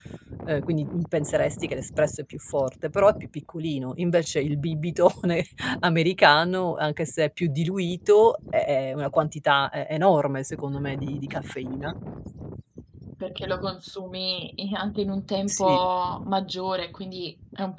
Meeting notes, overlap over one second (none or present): none